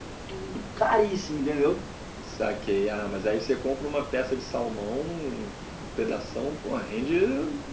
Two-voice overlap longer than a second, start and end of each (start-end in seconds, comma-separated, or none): none